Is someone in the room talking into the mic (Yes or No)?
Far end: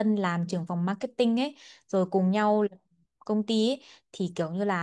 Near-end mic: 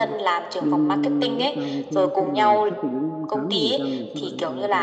Yes